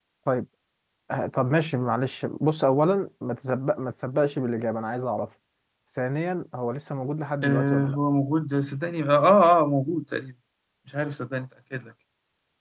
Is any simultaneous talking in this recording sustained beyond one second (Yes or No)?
No